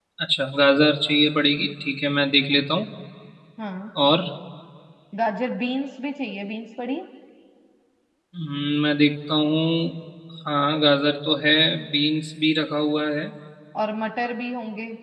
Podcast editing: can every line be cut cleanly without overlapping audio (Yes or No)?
Yes